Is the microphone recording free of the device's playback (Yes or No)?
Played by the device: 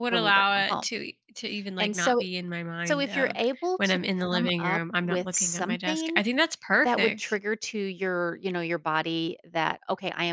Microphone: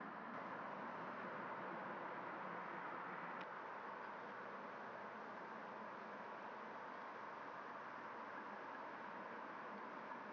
Yes